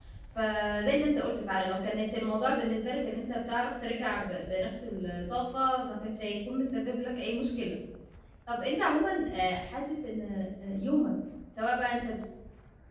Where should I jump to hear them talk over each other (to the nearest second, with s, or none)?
none